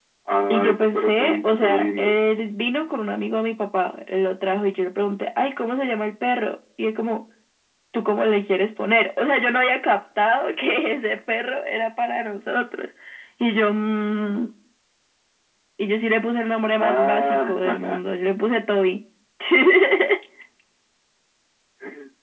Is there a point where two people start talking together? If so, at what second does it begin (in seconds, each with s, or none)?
0.5 s